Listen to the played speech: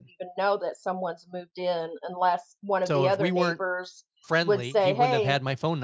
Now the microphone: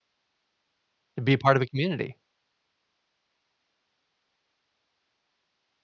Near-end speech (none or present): present